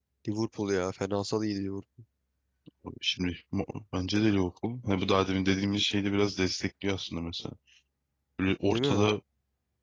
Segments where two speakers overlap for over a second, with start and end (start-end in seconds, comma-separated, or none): none